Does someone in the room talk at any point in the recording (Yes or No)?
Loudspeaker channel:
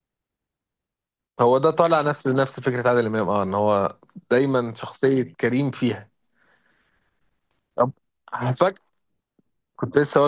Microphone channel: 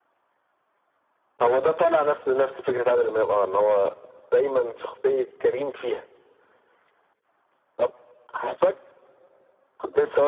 No